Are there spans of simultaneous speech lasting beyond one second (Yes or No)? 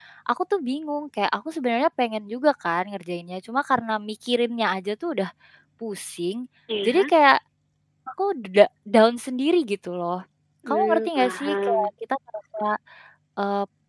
Yes